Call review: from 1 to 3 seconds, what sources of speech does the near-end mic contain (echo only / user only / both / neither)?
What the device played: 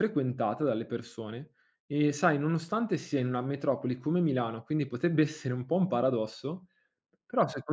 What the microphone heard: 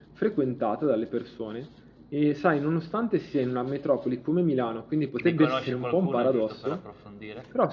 echo only